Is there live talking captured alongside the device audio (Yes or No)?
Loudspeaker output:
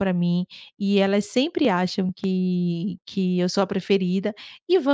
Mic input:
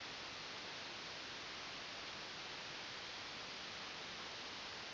No